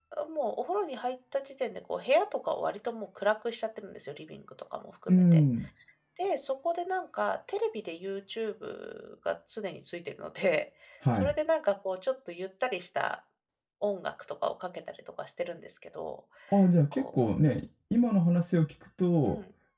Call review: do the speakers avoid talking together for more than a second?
Yes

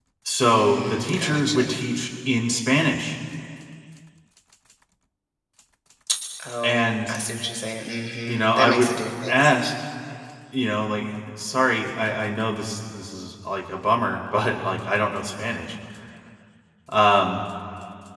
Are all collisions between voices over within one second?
No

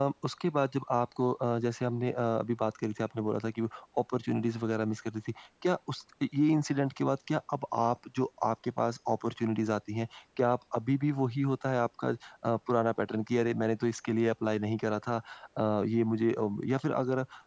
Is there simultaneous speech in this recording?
No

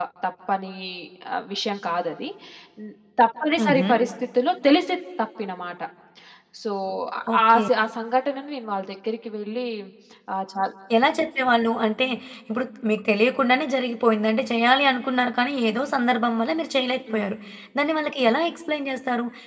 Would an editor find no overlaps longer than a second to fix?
Yes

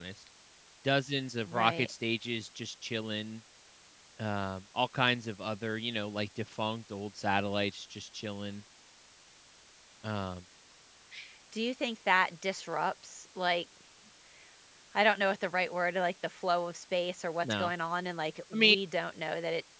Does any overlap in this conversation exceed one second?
No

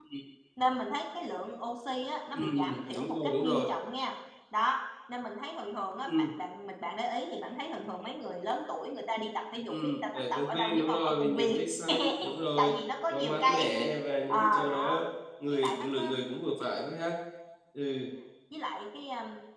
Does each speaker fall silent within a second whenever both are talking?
No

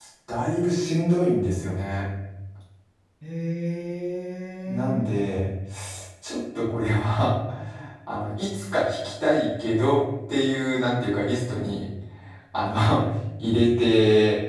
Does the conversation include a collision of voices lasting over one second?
No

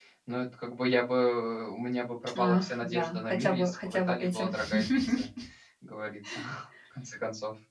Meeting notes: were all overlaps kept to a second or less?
No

